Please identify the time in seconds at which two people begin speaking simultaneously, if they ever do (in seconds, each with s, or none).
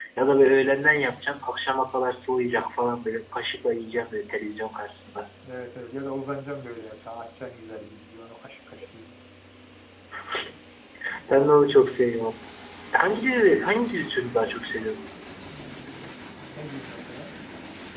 none